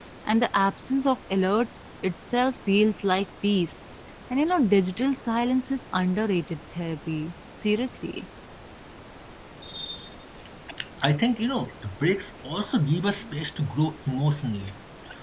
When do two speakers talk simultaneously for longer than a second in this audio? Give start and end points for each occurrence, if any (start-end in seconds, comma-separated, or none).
none